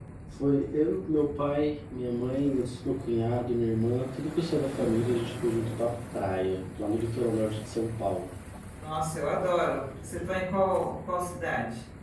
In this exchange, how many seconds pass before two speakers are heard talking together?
none

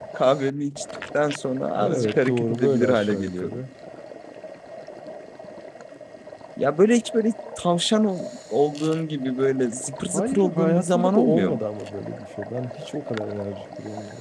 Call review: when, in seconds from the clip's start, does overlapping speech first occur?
1.8 s

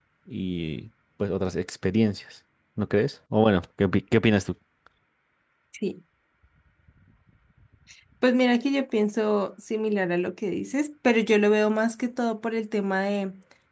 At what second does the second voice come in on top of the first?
none

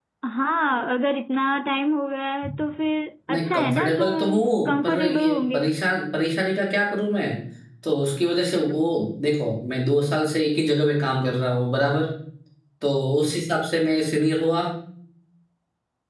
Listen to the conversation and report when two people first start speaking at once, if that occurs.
3.3 s

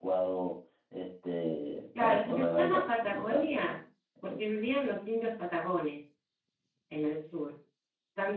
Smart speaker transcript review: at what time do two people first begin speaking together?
1.9 s

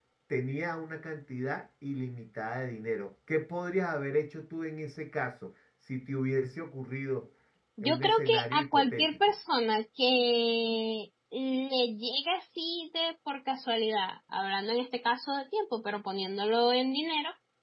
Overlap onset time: 7.8 s

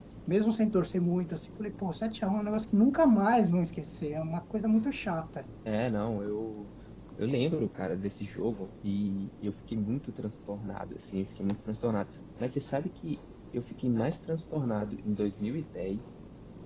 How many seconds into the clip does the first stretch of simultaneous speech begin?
none

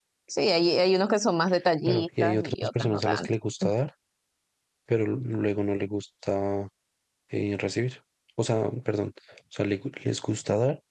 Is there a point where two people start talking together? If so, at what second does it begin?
1.9 s

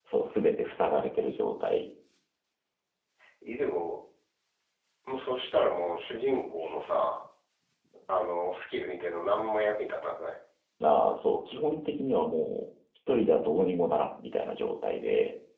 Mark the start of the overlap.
none

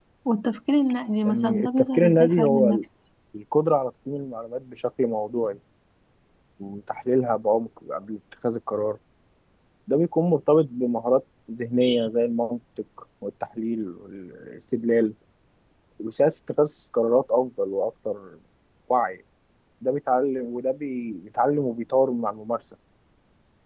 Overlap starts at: 1.2 s

